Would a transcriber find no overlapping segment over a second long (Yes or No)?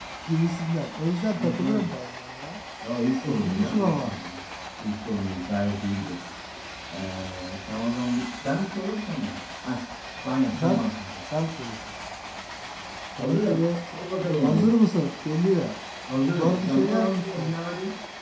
No